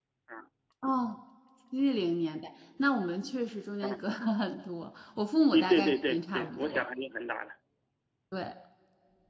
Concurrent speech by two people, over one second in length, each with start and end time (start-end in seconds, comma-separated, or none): 5.5-6.8